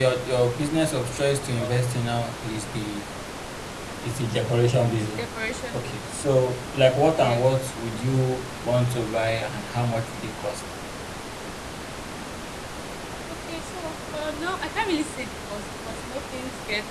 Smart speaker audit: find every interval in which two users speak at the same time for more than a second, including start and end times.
none

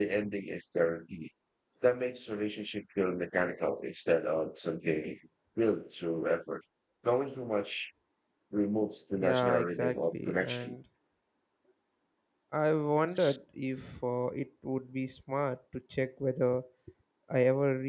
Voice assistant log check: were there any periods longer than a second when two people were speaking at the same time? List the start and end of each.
9.2-10.8

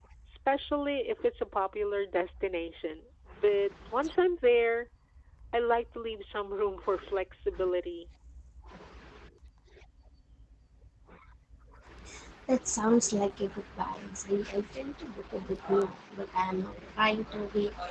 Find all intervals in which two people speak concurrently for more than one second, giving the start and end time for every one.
none

